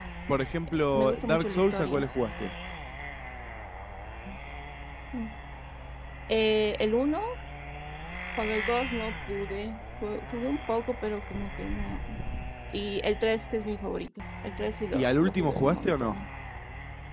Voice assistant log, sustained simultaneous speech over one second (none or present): present